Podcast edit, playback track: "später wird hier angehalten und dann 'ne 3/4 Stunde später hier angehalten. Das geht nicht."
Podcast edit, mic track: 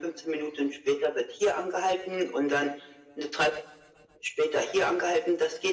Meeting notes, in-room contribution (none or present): none